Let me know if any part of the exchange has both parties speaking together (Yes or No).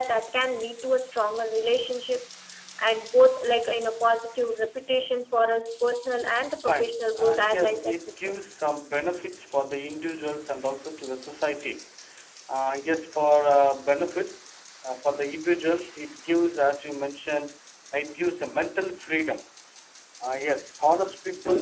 Yes